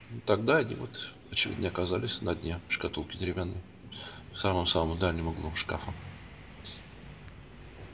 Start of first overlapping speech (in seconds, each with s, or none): none